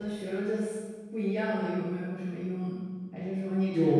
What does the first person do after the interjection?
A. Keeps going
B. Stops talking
B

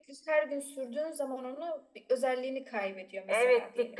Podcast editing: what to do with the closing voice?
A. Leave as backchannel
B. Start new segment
B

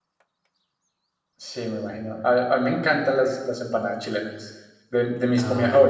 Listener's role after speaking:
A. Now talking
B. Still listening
B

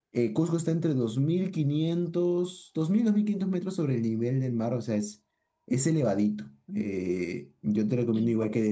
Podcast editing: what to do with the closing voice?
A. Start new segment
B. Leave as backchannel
B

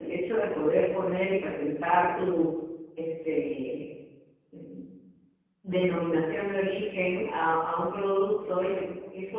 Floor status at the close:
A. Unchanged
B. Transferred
A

